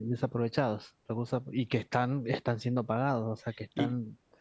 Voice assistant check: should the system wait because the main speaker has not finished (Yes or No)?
No